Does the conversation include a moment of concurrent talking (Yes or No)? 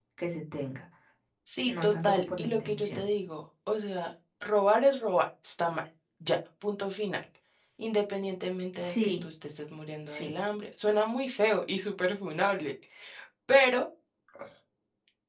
Yes